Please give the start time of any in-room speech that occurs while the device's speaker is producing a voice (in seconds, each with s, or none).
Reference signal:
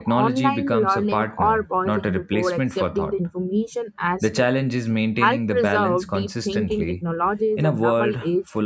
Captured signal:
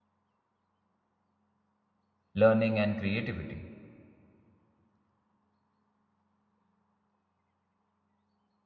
2.4 s